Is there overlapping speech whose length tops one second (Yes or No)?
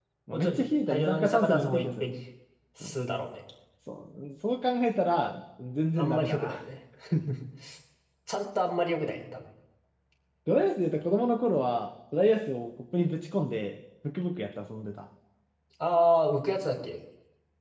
Yes